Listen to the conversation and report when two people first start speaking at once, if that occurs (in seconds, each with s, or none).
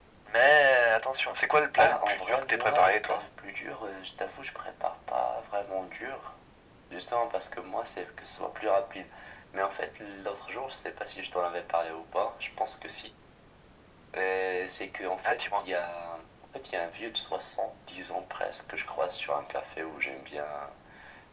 1.8 s